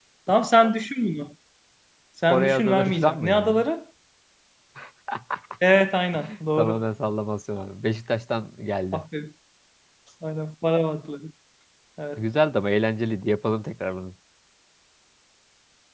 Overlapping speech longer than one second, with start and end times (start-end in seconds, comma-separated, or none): 2.3-3.6